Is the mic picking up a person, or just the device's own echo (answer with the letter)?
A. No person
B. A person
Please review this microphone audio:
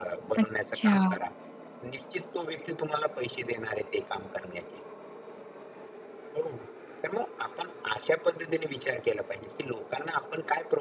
B